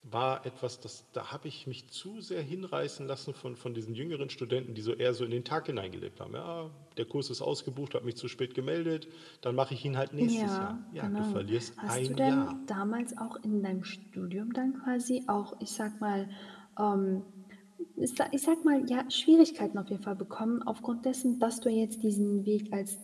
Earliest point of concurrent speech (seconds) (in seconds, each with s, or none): 10.2 s